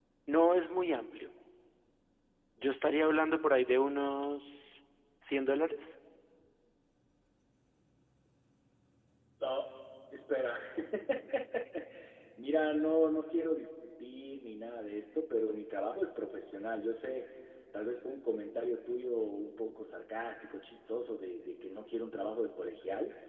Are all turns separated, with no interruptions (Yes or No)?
Yes